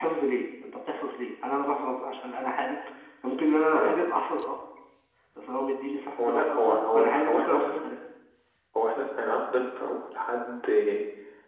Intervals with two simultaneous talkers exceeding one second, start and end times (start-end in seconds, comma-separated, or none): 6.2-7.9